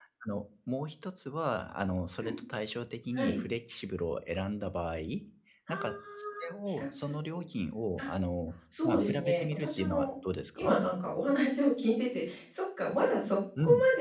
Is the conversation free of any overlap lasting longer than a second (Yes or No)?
No